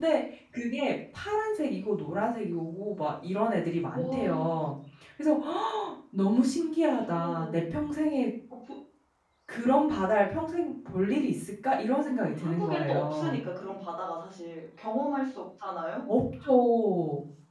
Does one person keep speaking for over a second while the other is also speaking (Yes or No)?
Yes